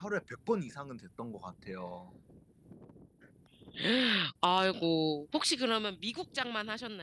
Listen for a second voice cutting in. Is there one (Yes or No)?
No